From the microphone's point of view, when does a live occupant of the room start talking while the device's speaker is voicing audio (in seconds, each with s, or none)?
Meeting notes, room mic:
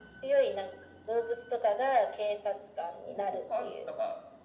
3.0 s